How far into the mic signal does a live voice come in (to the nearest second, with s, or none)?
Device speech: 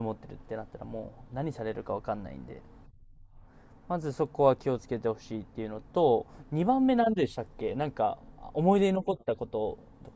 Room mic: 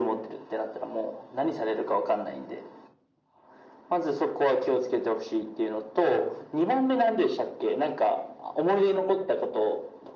none